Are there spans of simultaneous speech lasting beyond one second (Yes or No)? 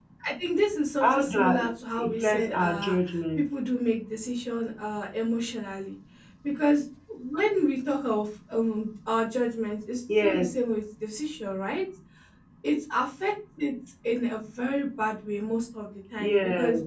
Yes